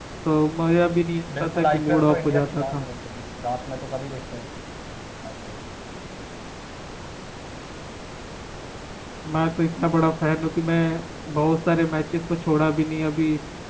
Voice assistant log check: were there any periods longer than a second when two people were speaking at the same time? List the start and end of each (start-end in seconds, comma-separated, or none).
1.4-2.8